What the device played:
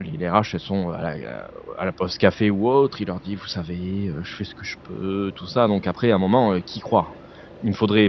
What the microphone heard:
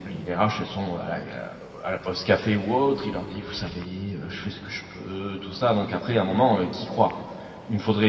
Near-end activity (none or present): none